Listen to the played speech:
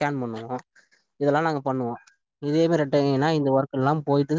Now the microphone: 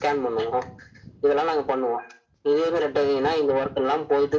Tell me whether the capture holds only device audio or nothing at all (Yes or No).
Yes